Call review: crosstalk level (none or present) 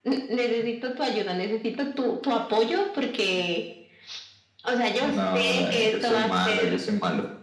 present